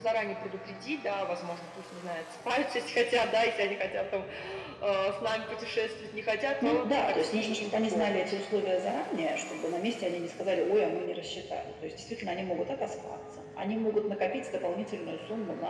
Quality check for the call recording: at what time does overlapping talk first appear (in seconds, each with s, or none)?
6.6 s